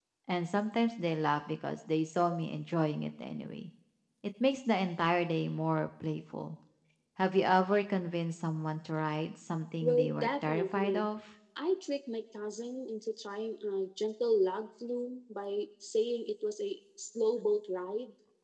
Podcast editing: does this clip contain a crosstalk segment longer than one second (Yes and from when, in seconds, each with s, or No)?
Yes, from 9.8 s